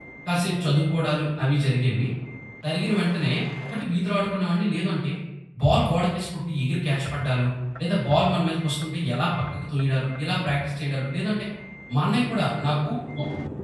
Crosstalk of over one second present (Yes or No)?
No